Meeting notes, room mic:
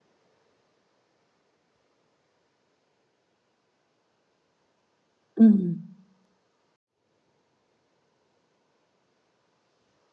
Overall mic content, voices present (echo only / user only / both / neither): user only